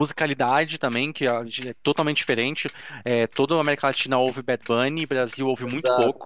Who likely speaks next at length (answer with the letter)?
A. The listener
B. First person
B